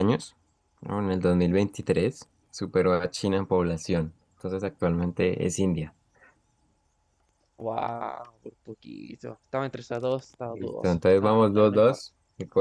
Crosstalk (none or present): present